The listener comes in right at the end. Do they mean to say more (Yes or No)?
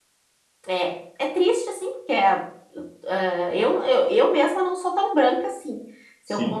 No